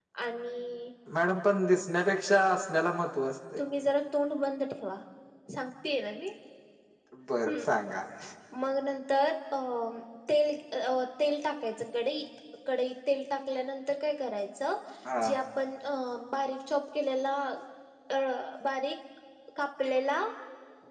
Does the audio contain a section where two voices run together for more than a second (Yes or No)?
No